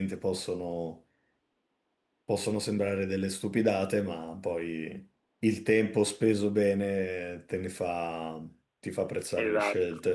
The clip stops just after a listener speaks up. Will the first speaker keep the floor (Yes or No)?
No